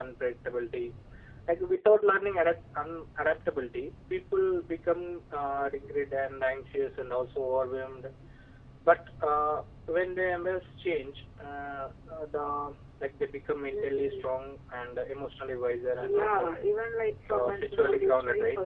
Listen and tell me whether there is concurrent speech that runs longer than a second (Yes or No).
Yes